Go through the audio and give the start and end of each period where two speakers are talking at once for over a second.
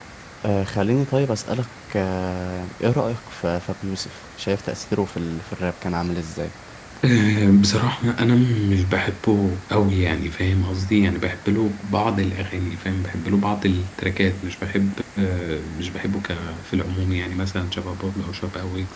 none

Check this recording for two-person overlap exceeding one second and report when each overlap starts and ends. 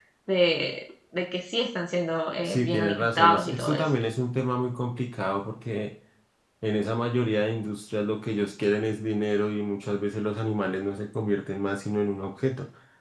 2.4-4.0

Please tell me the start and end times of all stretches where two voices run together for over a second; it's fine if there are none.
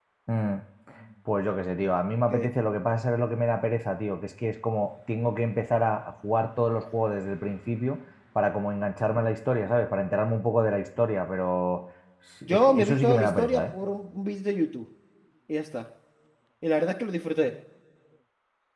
12.5-13.7

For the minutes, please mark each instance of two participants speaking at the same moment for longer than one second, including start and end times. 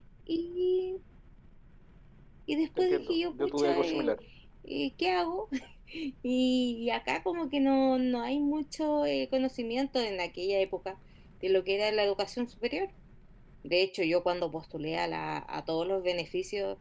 2.8-4.1

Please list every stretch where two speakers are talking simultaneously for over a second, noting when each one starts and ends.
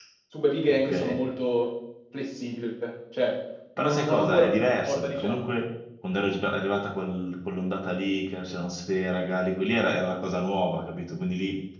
3.8-5.4

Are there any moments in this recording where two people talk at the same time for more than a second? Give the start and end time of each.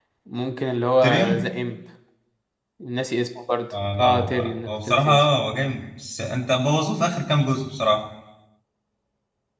4.0-5.2

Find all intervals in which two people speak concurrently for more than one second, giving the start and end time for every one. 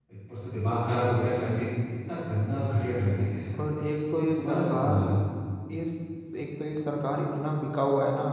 3.6-5.0

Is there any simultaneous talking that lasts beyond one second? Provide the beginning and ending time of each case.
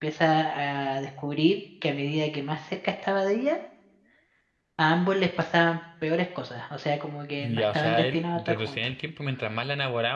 7.4-8.9

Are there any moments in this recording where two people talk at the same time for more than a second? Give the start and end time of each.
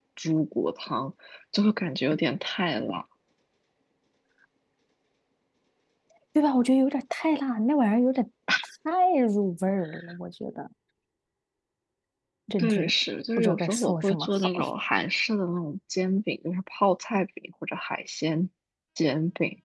13.4-14.6

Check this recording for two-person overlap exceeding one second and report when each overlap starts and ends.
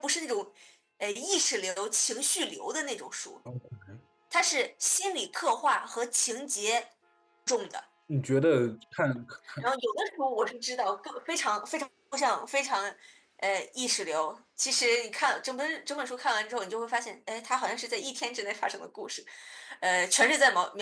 none

